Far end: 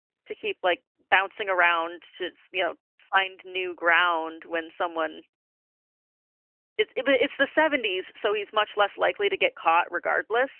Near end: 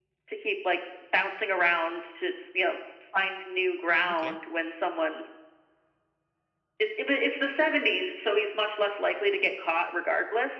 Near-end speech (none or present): present